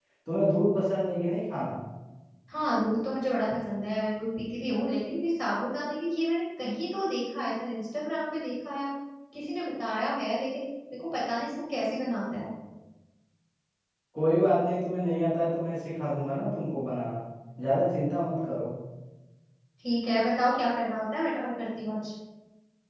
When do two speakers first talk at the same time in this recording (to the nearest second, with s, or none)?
none